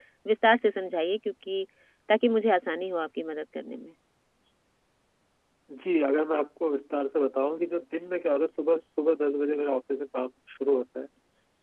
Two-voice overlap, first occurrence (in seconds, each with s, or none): none